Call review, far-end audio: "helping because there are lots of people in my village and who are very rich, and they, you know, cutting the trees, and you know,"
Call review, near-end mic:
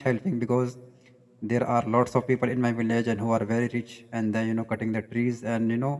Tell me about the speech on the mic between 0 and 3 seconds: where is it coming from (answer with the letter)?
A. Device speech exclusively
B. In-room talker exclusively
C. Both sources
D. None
A